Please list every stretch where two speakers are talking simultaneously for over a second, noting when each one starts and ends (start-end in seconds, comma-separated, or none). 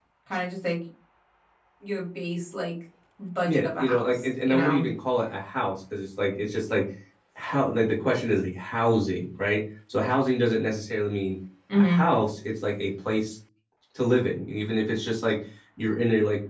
3.5-4.8